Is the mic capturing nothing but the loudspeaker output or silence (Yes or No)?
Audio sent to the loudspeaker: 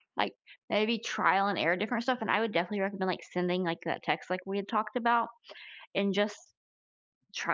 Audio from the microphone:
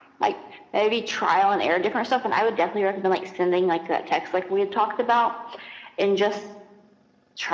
Yes